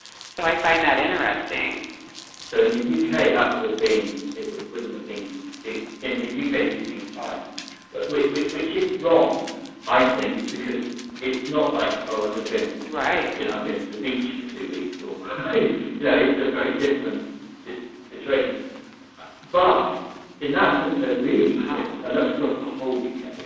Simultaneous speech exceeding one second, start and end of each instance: none

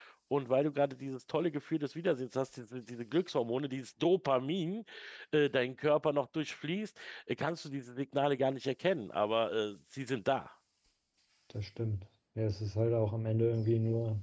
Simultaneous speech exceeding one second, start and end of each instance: none

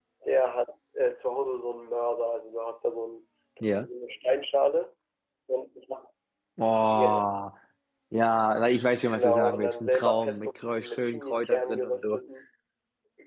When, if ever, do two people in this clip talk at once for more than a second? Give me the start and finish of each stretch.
8.9-12.2

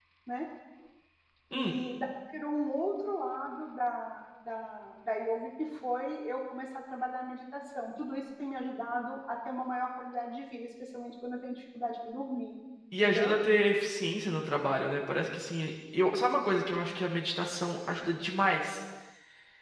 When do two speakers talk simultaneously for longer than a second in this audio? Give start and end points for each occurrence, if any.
none

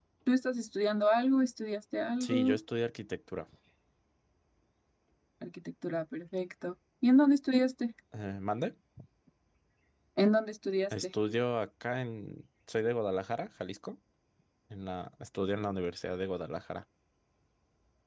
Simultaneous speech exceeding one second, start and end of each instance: none

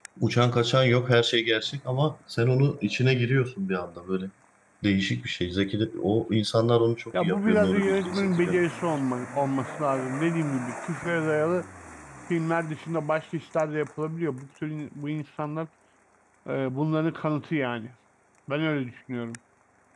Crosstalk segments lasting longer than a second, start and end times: 7.2-8.5

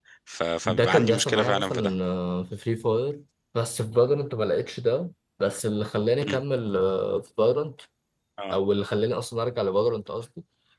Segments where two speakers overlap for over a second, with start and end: 0.6-1.9

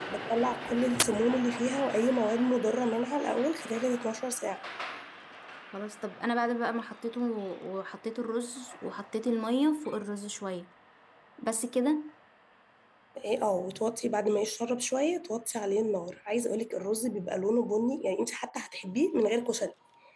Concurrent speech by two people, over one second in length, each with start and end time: none

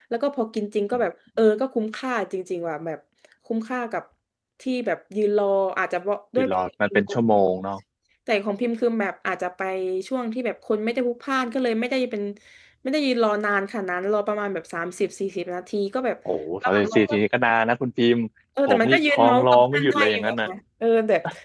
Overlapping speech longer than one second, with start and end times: 18.7-20.5

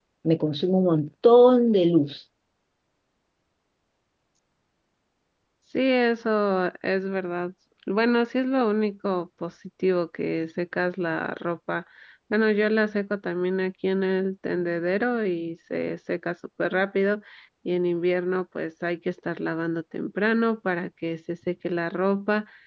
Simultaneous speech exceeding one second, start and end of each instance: none

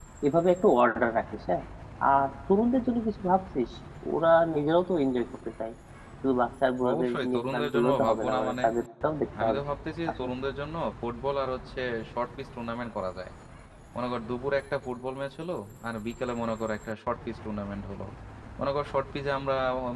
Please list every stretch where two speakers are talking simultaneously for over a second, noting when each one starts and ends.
6.9-8.6

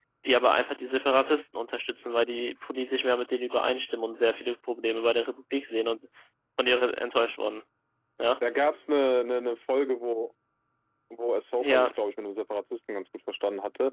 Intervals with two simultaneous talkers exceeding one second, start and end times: none

